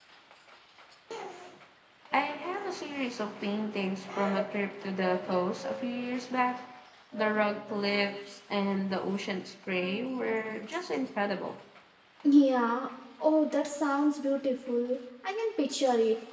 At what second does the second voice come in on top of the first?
none

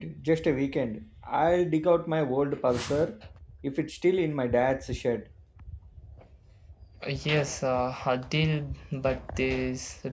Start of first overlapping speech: none

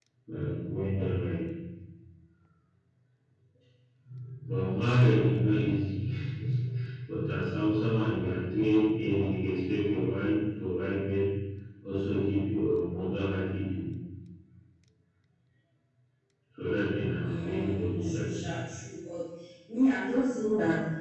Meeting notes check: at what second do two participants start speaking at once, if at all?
17 s

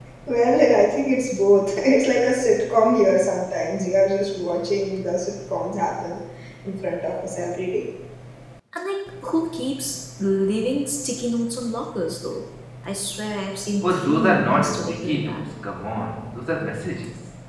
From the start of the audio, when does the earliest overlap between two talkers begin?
14 s

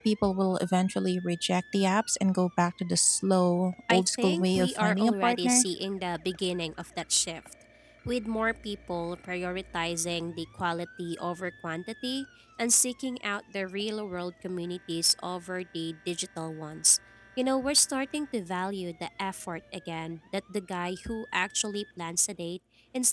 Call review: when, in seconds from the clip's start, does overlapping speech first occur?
4 s

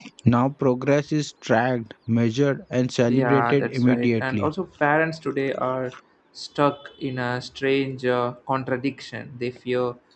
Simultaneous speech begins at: 3 s

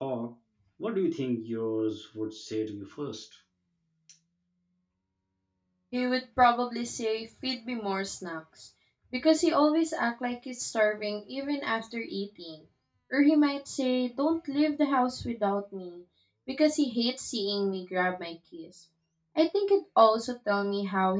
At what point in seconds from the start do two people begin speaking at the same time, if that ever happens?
none

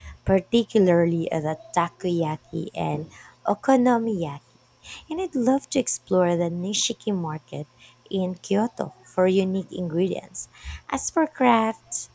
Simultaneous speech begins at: none

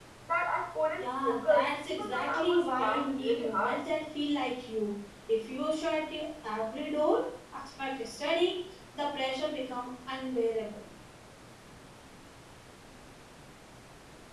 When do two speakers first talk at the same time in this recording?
1 s

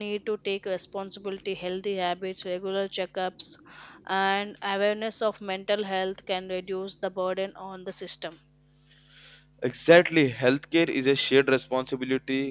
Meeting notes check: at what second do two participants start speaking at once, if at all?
none

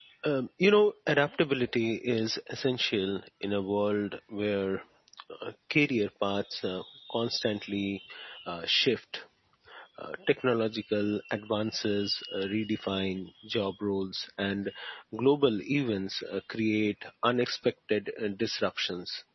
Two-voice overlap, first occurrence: none

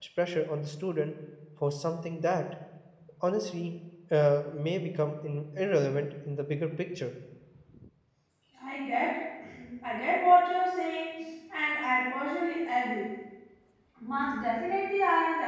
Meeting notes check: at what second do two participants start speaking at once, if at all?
none

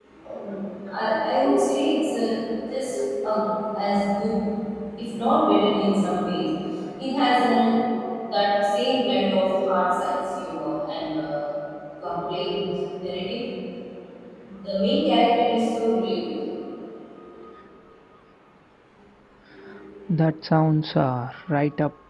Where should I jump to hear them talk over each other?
none

